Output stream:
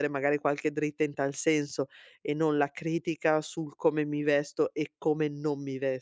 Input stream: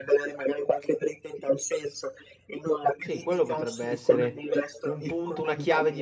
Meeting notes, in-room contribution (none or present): present